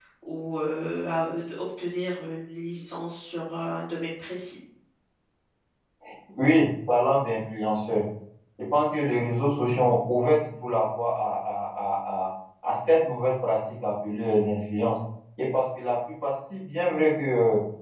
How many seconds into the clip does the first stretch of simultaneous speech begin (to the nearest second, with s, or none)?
none